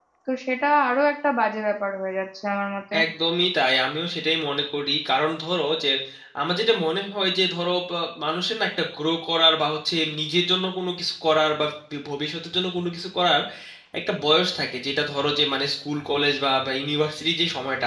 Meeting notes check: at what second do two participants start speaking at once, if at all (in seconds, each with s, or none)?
none